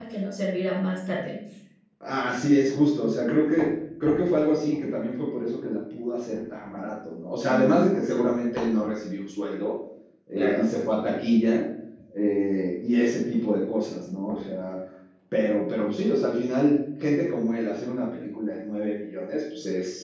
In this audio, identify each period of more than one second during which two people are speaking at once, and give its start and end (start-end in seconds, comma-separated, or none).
none